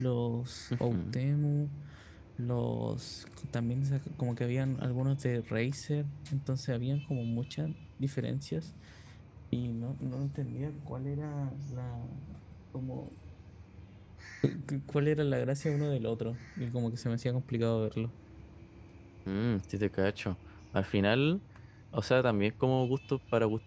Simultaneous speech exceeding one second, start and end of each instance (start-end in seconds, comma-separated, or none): none